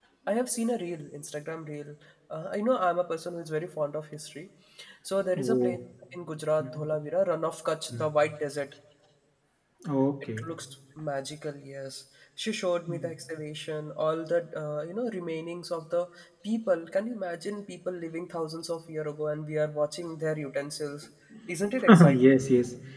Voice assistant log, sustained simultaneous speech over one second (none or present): none